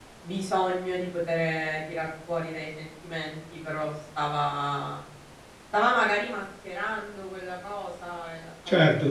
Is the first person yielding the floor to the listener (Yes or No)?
Yes